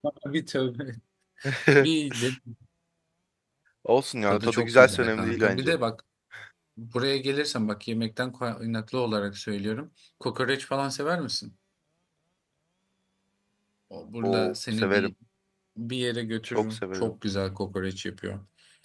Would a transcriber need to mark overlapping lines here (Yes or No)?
Yes